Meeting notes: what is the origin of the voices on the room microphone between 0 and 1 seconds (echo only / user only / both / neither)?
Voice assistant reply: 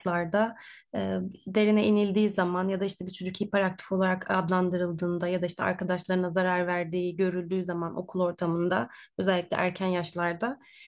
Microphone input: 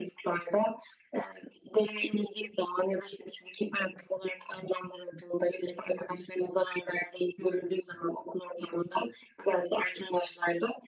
echo only